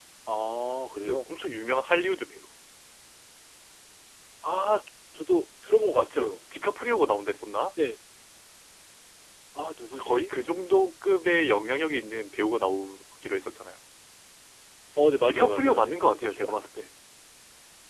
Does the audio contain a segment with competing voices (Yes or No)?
Yes